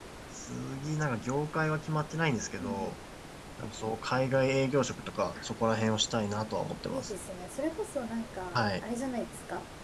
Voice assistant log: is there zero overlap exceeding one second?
Yes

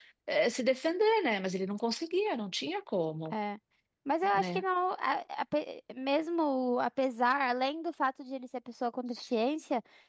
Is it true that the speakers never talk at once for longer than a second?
Yes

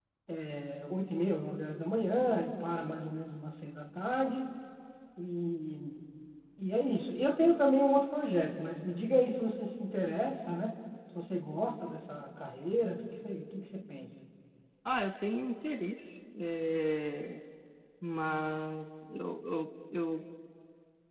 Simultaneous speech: No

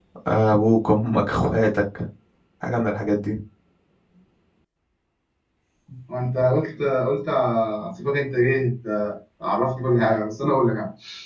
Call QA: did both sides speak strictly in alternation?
Yes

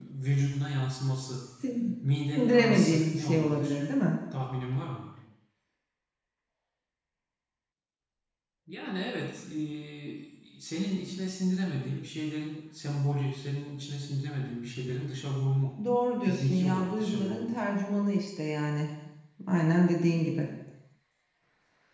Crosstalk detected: Yes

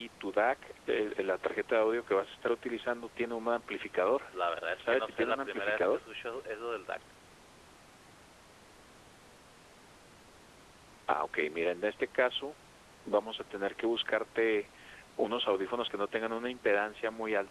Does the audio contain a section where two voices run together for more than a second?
Yes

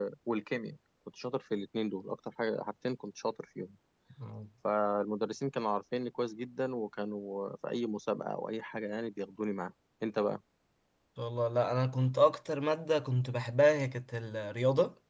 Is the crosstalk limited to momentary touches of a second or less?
Yes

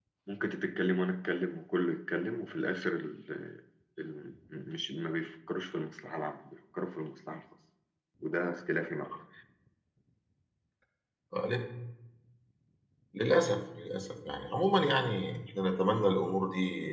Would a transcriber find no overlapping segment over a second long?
Yes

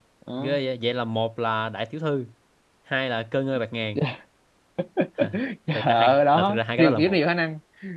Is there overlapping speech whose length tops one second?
Yes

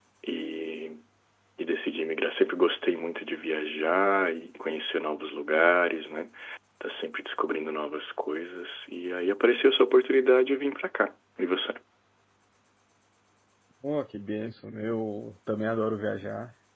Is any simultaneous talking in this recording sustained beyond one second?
No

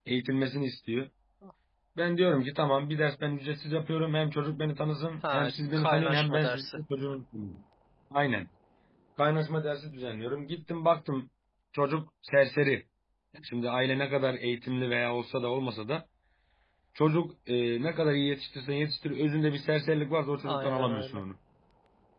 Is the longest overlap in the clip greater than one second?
Yes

